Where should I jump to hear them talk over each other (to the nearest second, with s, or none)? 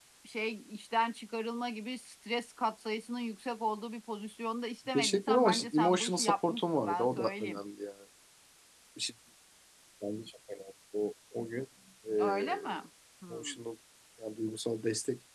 5 s